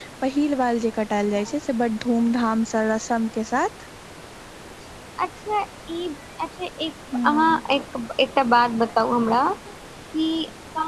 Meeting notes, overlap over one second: none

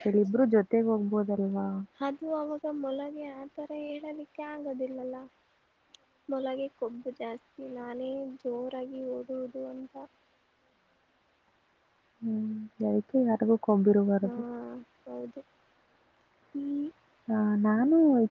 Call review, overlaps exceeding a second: none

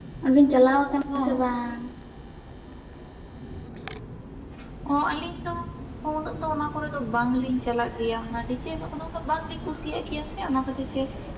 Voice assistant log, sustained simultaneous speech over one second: none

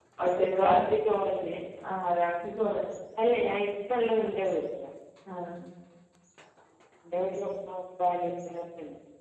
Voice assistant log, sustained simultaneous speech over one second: none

